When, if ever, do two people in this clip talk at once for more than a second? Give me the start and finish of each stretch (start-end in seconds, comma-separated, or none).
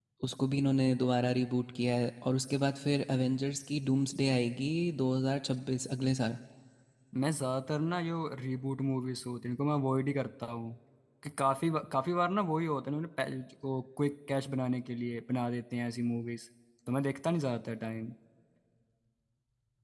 none